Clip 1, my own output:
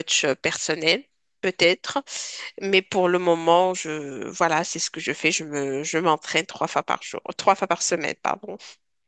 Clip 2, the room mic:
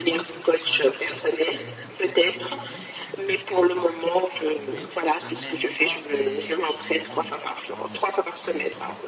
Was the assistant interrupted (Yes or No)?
Yes